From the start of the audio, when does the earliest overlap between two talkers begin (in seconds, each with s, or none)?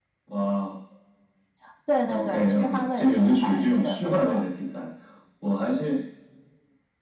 2.1 s